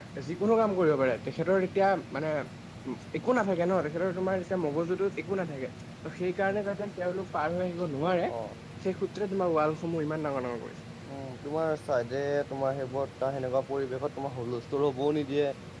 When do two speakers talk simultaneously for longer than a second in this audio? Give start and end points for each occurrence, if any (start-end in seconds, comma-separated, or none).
none